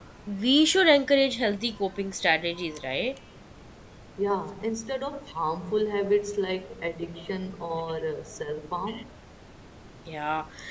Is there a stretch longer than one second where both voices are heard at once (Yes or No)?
No